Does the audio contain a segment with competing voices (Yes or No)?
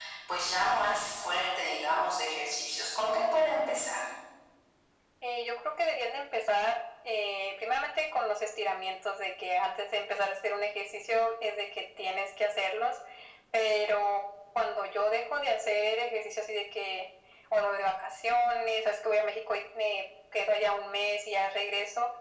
No